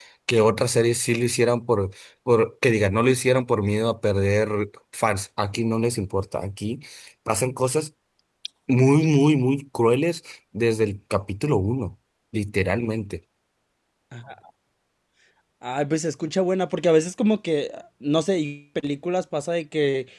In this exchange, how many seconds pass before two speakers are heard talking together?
none

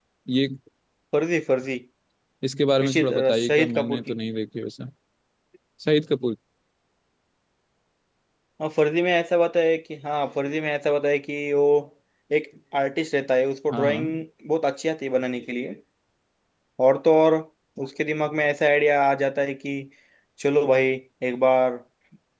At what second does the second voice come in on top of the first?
2.8 s

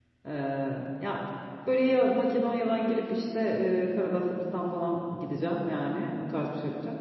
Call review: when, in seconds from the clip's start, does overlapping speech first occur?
none

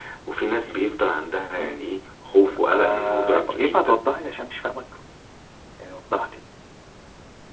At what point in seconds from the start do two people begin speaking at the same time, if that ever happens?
2.7 s

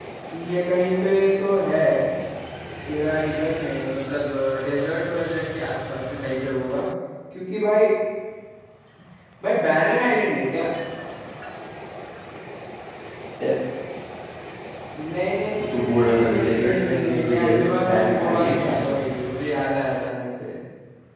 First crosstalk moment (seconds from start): 15.6 s

